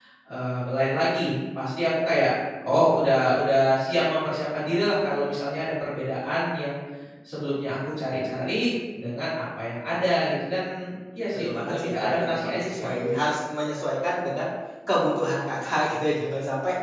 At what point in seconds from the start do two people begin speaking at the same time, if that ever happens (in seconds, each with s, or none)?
11.3 s